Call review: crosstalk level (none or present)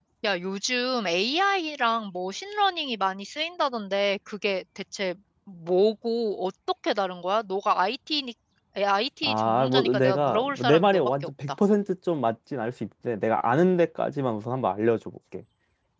present